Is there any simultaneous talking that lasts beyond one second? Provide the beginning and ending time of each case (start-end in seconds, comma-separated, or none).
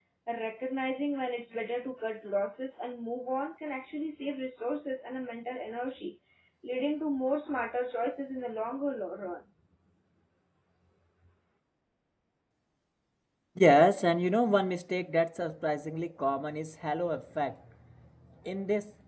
none